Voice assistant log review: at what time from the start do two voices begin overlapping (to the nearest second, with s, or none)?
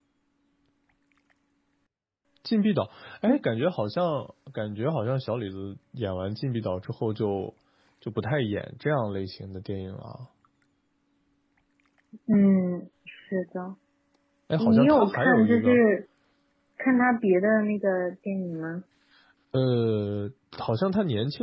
15 s